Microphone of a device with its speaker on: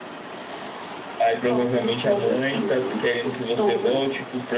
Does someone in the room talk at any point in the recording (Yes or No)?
Yes